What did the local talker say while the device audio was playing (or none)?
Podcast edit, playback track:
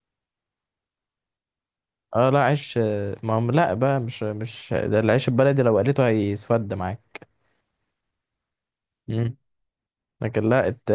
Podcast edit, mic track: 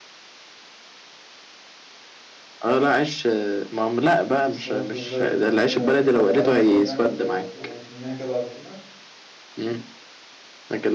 سلطة ازاي بت- بت- بتقطع عليها سلطة يعني وت- وت- وترميها كده على التونة